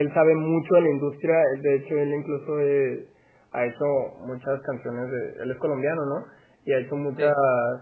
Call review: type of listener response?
listening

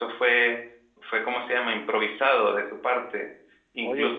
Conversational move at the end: listening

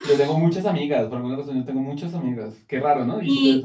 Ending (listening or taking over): taking over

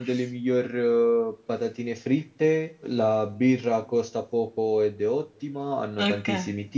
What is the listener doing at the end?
listening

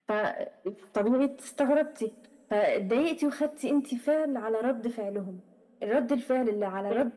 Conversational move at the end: listening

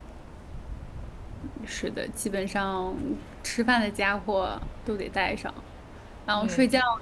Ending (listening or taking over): listening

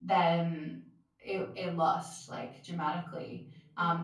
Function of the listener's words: listening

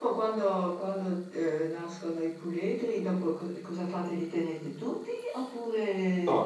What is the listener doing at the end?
taking over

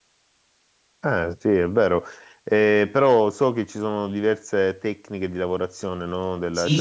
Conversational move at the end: taking over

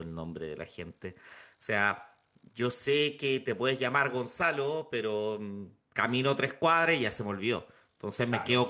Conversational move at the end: listening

